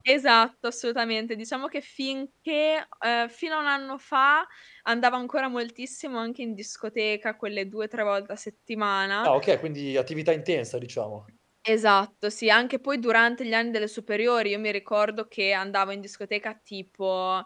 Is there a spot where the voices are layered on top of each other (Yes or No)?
No